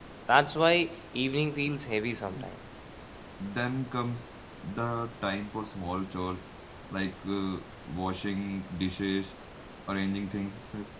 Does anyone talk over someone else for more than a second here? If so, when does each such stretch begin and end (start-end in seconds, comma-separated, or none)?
none